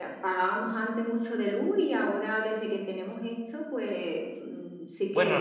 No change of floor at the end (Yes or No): No